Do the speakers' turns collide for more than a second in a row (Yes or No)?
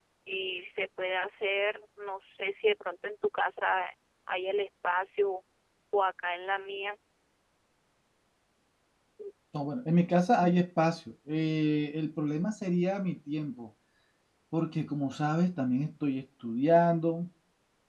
No